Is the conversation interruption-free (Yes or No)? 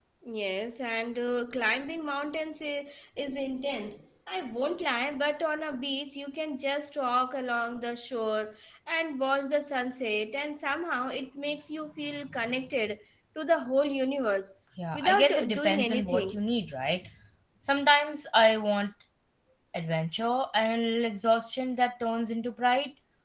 No